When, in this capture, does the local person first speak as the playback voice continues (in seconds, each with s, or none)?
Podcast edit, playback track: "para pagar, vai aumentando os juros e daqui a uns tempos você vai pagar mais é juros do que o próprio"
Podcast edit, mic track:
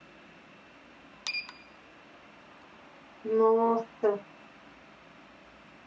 3.2 s